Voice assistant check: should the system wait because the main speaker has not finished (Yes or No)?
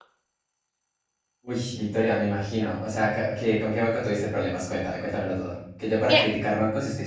Yes